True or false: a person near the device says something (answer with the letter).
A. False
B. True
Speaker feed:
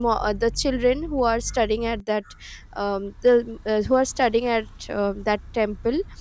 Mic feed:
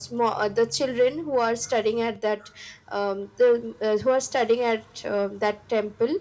A